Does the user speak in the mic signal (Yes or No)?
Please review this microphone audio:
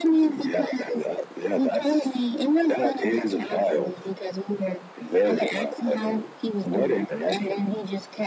No